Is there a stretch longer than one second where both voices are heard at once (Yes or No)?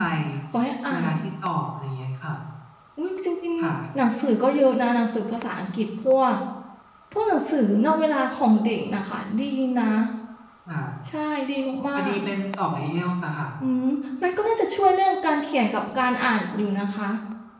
No